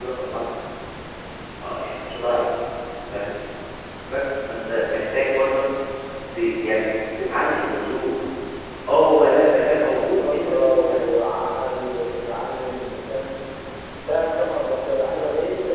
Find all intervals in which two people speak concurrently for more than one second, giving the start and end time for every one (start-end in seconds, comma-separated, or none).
9.1-11.0